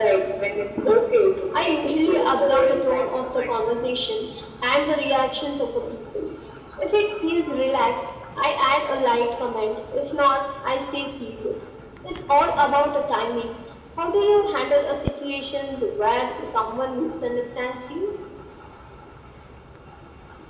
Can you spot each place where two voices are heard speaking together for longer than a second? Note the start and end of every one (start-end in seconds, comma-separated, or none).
1.5-3.5